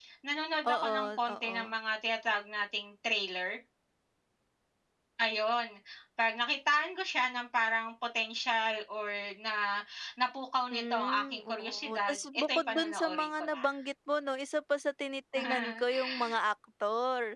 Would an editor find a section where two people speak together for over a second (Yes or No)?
Yes